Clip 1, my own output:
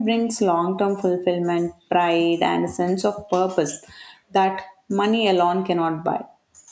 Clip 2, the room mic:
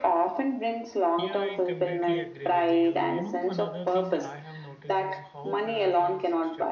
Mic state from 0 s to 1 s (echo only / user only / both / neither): echo only